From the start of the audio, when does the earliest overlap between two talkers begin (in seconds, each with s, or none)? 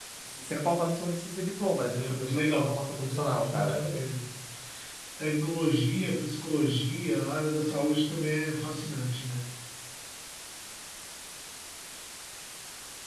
1.9 s